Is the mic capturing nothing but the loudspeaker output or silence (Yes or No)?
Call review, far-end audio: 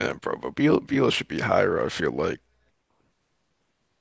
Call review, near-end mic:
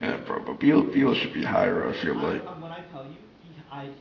No